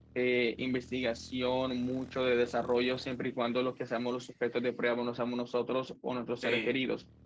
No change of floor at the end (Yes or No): Yes